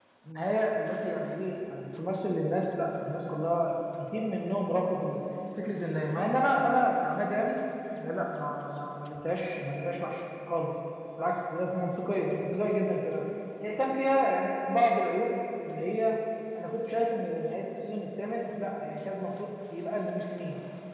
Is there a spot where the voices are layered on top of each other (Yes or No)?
No